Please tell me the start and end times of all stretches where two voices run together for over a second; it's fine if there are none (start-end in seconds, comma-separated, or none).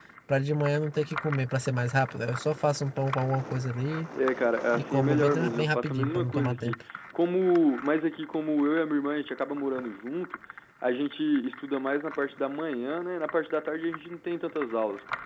4.7-6.7